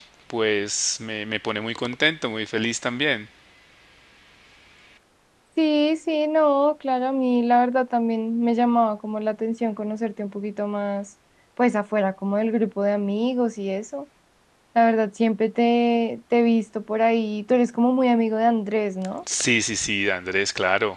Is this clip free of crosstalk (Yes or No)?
Yes